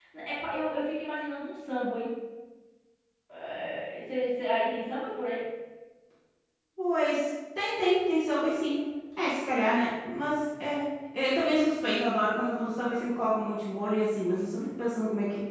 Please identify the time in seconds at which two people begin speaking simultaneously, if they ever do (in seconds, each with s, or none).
none